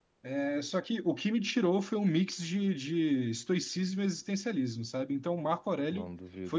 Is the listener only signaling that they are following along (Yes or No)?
Yes